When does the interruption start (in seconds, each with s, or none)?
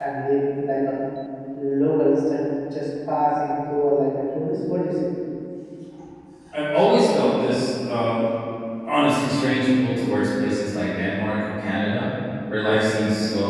none